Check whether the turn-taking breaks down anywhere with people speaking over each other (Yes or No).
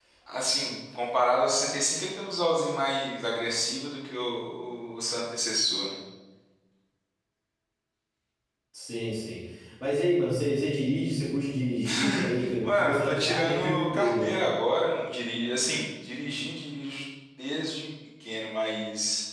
Yes